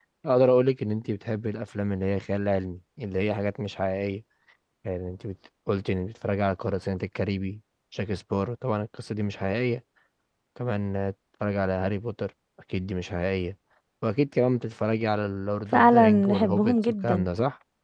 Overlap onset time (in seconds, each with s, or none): 15.7 s